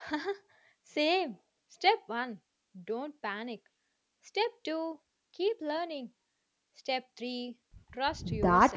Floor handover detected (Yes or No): Yes